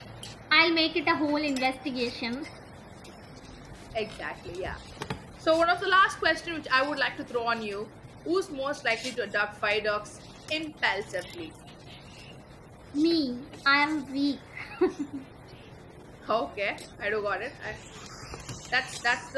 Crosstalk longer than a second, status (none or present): none